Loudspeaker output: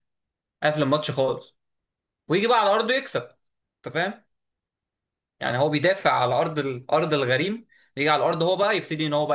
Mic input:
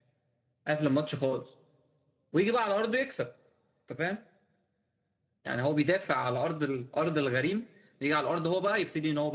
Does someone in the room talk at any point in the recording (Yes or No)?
No